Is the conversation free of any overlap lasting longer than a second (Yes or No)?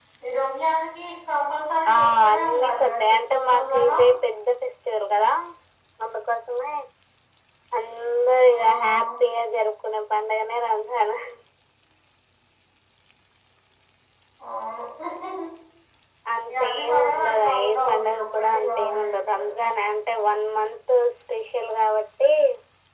No